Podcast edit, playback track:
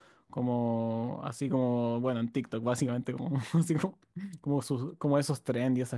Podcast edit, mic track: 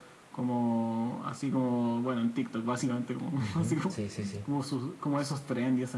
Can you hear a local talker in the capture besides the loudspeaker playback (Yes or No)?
Yes